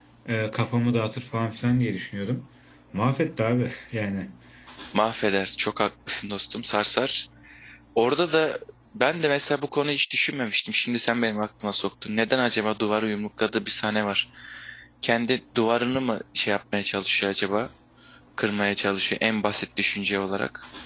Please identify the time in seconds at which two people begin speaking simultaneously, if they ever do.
none

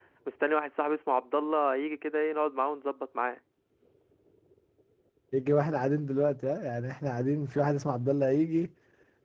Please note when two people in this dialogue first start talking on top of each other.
none

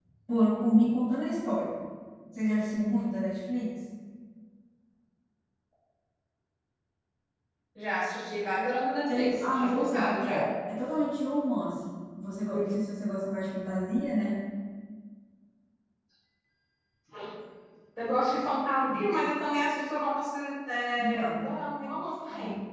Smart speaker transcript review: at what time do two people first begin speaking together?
9.1 s

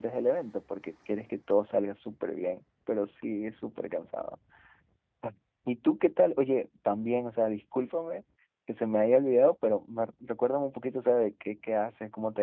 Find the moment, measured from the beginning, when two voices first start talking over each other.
none

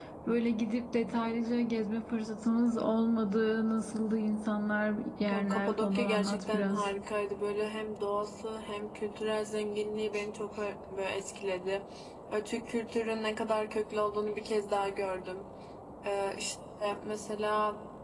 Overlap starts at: 5.3 s

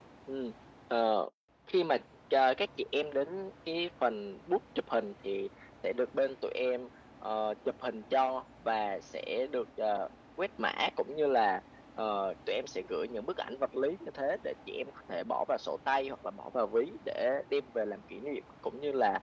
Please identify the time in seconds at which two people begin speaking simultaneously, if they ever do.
none

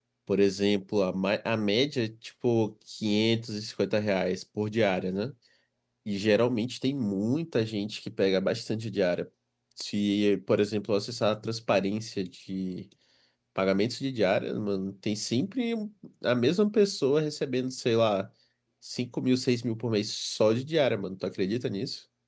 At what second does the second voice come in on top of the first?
none

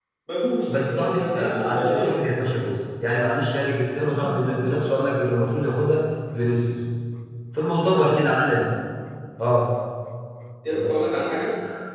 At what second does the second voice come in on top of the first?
0.7 s

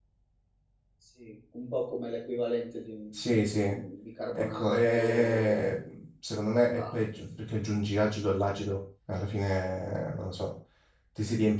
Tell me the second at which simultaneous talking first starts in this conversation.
4.4 s

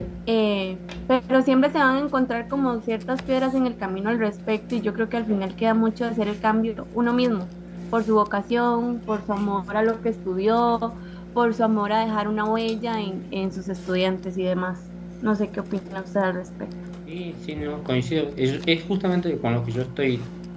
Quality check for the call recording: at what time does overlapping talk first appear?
none

